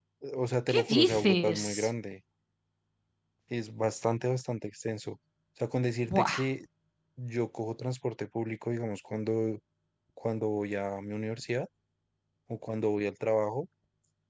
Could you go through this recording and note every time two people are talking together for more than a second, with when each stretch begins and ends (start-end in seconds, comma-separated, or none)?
0.7-1.9